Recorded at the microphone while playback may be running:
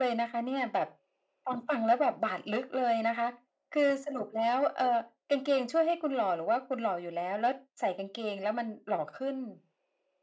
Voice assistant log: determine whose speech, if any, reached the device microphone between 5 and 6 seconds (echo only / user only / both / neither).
echo only